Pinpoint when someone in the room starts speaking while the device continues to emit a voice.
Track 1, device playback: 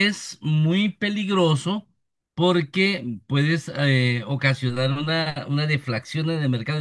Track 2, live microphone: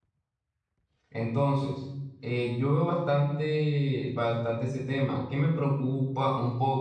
1.1 s

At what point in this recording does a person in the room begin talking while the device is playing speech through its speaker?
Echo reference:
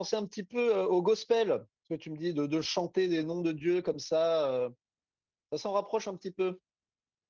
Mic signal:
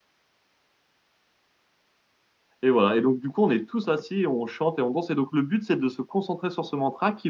2.6 s

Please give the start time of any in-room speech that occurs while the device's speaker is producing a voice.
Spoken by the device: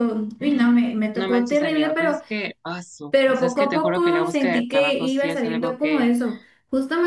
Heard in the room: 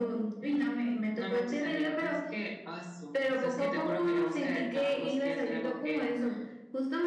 none

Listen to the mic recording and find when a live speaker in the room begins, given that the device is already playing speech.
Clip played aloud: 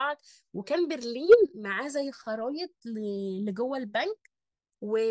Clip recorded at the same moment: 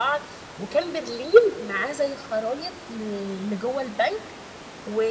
none

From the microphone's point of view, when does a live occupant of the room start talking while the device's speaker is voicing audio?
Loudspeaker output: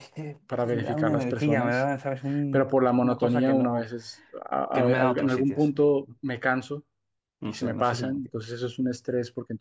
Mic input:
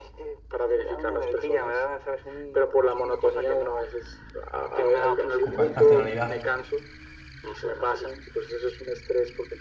5.4 s

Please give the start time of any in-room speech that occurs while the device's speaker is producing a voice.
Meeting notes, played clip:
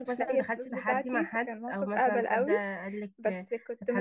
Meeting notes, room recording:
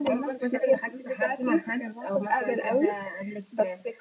none

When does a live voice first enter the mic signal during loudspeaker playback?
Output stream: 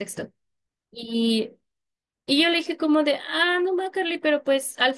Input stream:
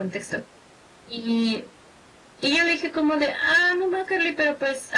none

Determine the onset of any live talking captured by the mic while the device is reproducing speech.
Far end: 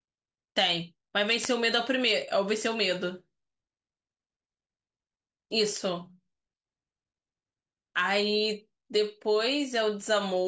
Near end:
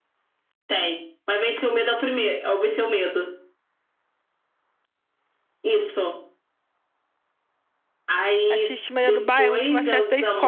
8.5 s

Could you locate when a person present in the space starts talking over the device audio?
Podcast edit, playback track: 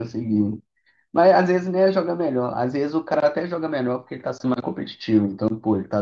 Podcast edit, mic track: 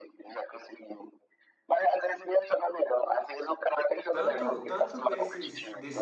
4.1 s

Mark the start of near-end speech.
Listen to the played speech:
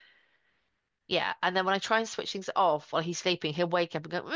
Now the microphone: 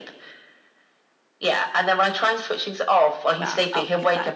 3.4 s

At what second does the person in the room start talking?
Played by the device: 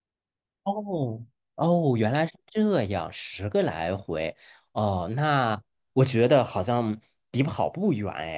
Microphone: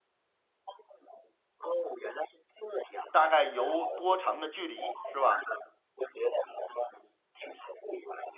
3.1 s

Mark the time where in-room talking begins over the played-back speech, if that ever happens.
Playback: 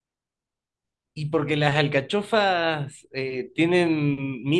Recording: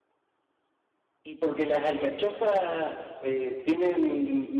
none

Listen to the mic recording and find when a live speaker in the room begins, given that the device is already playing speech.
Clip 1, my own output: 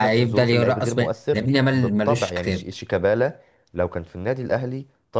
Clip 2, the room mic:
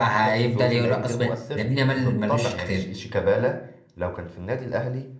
none

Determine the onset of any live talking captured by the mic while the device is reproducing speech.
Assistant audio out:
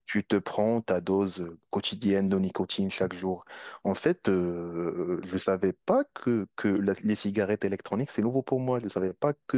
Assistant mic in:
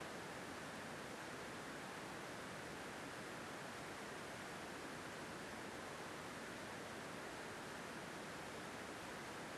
none

